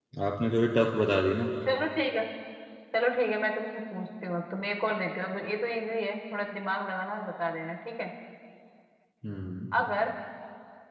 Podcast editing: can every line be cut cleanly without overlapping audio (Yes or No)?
Yes